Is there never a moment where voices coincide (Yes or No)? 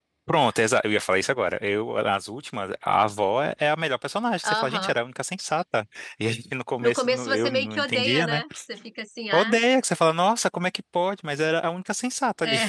No